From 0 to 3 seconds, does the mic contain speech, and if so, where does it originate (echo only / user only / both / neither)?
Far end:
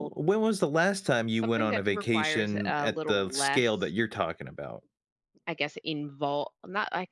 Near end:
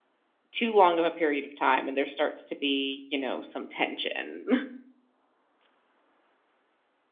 user only